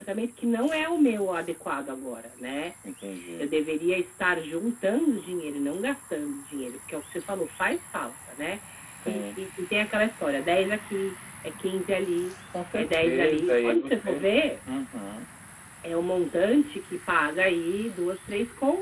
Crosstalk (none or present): present